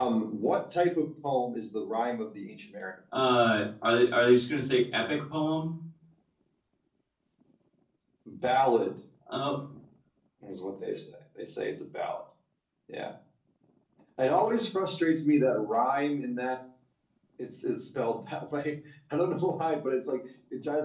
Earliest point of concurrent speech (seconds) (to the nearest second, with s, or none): none